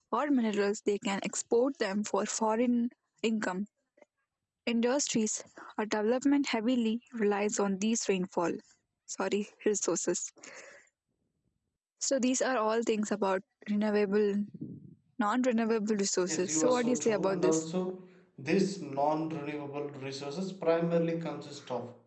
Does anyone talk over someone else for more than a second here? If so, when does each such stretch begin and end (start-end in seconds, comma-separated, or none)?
16.2-17.6